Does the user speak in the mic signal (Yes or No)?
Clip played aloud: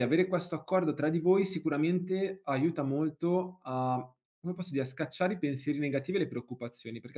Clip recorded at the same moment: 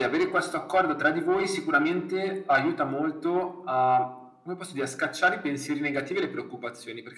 No